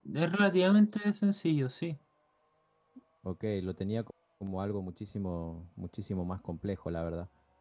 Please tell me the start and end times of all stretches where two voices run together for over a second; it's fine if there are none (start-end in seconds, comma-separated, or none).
none